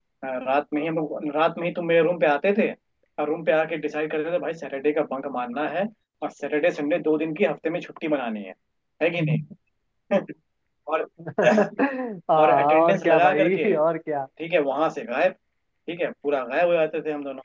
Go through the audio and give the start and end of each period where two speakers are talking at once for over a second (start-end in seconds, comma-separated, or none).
12.4-13.6